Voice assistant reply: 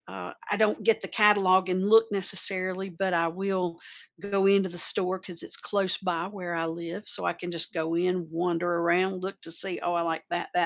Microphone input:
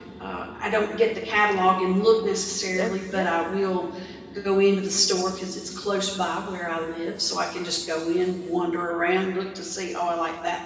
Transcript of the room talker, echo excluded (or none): And yeah.